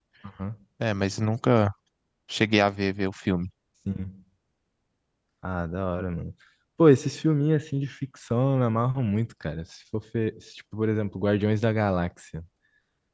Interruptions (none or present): none